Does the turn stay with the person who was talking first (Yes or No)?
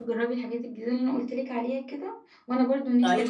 Yes